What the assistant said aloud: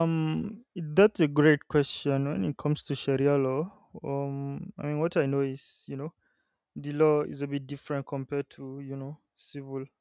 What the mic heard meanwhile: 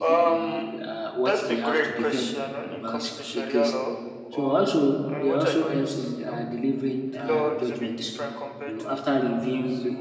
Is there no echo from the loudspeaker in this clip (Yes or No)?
No